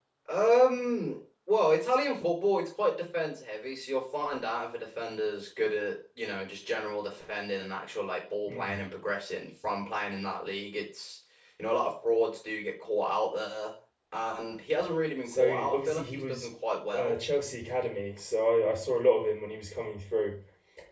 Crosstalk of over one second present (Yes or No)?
Yes